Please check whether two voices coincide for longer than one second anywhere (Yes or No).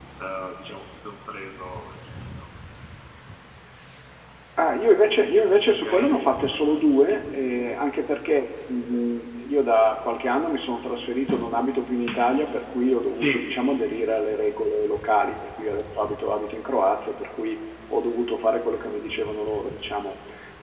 No